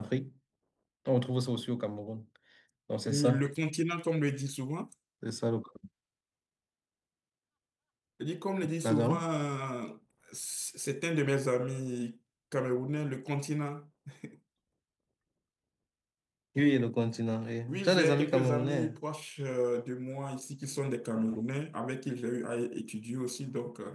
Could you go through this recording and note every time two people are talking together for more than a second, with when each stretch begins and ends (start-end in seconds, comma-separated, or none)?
17.7-18.9